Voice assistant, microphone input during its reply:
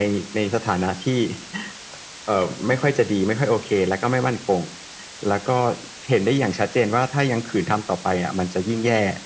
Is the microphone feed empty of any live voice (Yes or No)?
Yes